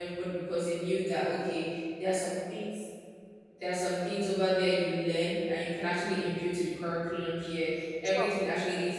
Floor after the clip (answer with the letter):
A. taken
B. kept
B